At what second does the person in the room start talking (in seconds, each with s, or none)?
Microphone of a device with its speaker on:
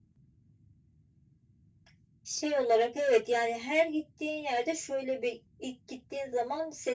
none